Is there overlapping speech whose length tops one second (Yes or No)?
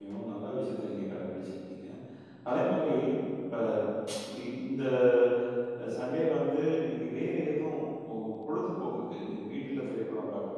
No